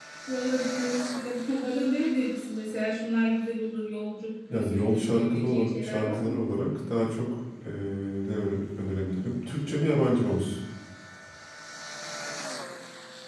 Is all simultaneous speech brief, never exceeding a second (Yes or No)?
No